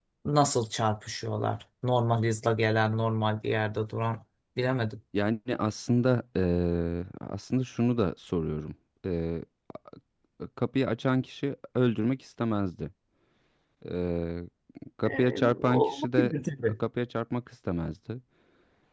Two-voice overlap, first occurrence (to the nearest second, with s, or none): 15 s